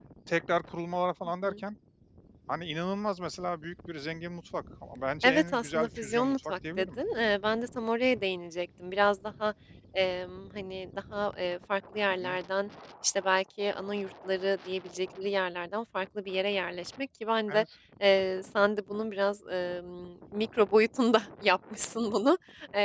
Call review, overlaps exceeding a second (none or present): present